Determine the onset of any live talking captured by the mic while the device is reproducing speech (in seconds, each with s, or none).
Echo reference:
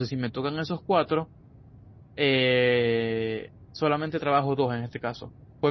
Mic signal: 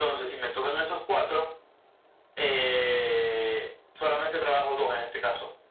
none